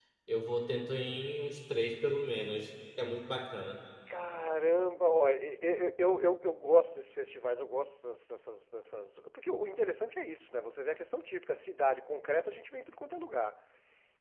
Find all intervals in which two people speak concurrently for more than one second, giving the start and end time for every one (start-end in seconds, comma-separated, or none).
none